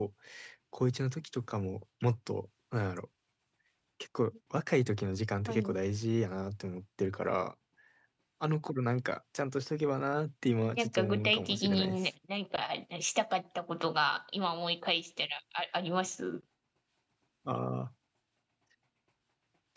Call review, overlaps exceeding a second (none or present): present